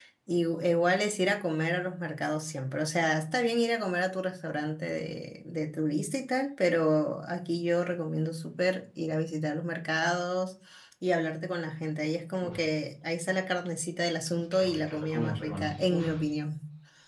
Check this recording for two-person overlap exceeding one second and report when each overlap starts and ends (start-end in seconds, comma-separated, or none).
14.5-16.0